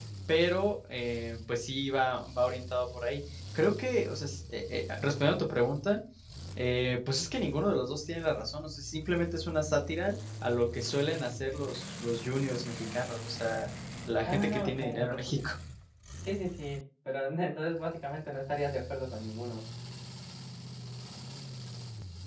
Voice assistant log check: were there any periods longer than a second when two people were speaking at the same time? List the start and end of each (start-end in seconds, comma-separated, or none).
14.2-15.5